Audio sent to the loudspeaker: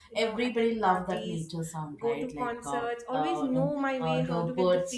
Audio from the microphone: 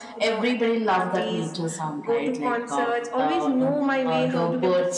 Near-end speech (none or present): none